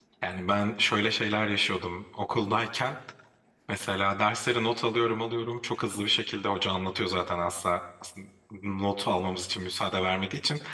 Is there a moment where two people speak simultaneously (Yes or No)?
No